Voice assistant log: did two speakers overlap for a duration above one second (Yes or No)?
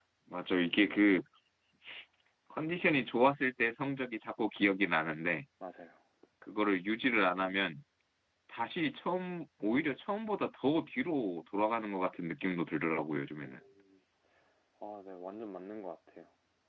No